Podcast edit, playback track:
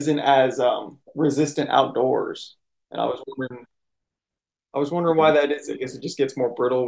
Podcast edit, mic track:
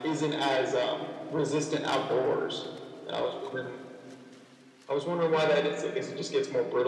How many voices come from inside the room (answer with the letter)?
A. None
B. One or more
A